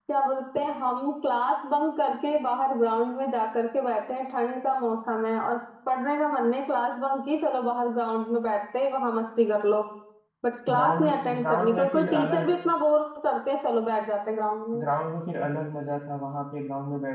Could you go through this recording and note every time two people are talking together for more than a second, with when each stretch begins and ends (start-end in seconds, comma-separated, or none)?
10.7-12.5